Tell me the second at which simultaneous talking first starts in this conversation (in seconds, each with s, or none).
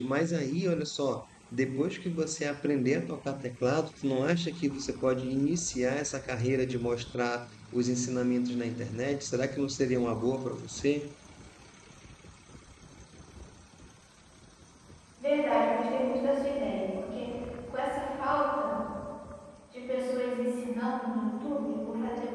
none